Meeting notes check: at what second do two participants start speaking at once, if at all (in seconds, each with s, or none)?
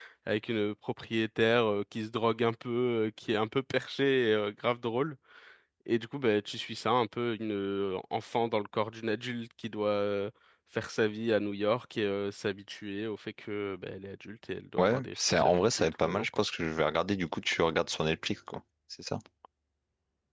14.8 s